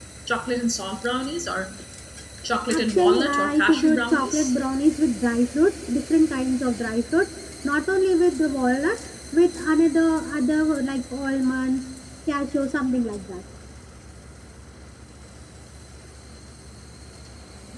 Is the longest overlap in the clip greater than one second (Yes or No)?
Yes